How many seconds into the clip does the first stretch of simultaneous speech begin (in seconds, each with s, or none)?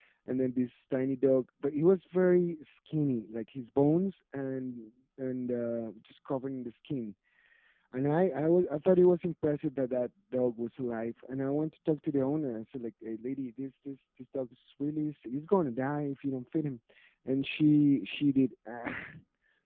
none